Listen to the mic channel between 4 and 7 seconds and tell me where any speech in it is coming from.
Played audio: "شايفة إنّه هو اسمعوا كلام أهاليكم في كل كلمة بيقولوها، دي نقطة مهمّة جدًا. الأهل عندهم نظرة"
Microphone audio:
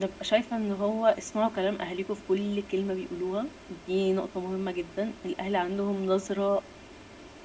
echo only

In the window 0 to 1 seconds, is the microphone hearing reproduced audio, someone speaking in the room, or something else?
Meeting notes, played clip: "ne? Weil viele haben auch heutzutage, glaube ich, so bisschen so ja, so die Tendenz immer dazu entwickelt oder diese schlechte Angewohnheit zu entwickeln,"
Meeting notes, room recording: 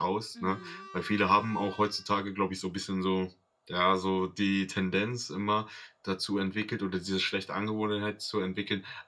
both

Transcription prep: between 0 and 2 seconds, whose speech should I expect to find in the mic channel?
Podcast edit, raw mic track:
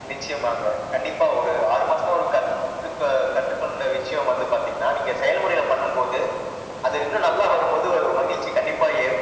echo only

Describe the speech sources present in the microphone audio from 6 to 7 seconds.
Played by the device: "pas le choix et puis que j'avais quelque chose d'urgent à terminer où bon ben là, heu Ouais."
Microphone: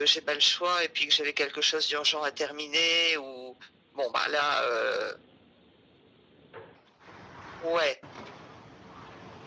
neither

